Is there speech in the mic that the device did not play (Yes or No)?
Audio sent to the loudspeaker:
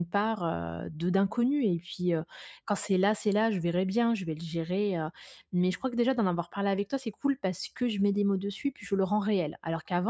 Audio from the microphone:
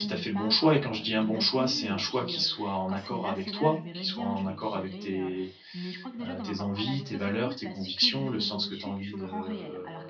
Yes